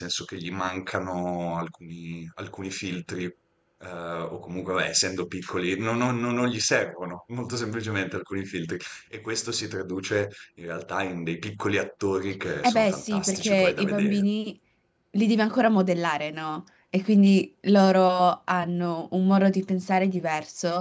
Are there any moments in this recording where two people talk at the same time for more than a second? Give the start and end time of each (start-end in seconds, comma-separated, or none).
12.6-14.2